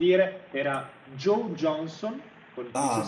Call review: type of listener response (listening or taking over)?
taking over